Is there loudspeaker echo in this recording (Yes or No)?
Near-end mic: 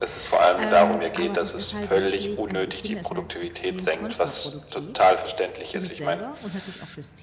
Yes